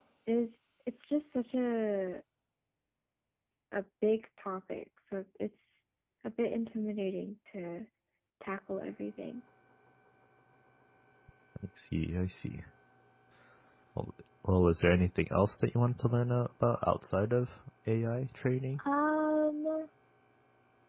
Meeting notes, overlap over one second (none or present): none